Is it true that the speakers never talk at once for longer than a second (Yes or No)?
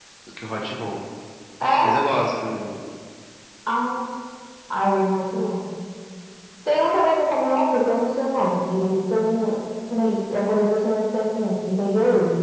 Yes